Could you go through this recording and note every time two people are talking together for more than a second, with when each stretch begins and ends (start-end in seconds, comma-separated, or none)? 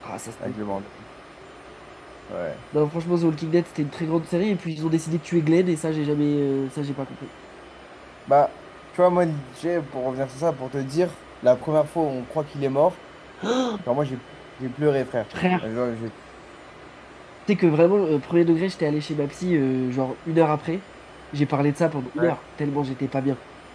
none